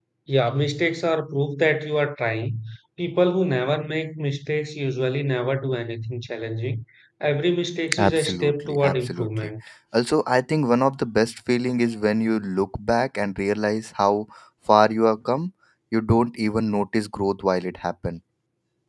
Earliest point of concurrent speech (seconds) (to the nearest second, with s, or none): 8 s